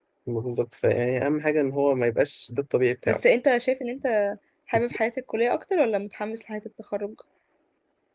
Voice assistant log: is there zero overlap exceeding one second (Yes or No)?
Yes